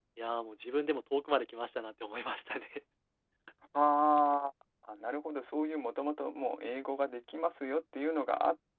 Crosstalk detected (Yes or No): No